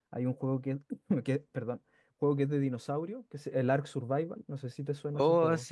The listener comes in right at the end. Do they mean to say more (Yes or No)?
Yes